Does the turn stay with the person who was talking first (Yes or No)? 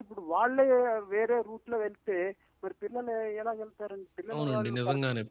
No